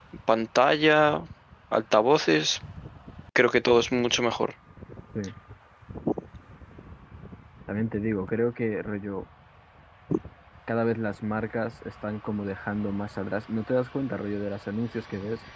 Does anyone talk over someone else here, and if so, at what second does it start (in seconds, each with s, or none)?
none